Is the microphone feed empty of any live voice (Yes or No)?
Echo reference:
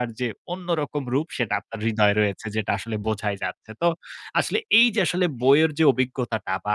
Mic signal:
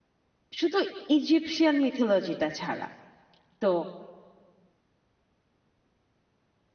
No